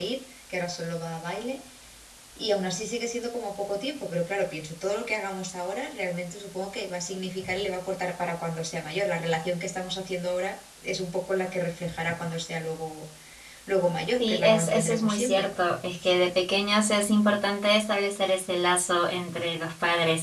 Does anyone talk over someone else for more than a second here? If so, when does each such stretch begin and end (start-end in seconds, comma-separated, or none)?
14.2-15.5